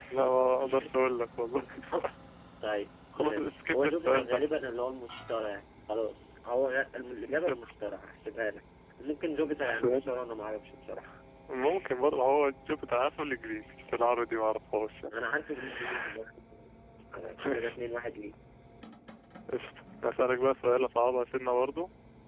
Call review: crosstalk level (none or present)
present